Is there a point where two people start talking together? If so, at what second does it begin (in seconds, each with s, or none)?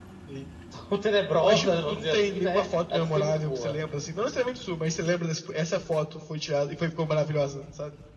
1.4 s